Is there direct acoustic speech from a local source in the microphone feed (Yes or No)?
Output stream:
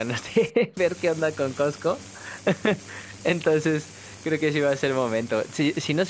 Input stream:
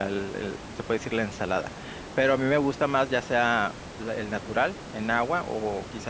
Yes